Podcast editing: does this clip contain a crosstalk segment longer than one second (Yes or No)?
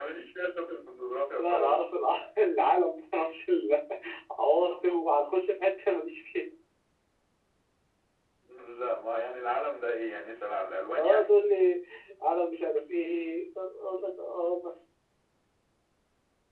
No